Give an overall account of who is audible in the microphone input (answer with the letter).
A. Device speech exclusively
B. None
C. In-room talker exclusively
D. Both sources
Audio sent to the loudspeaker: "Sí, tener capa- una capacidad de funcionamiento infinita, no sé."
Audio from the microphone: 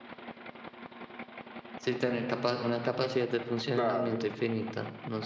D